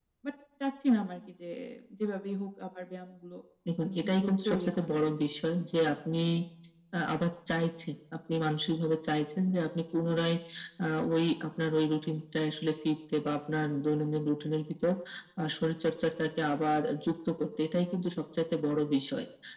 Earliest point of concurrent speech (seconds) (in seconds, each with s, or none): 3.8 s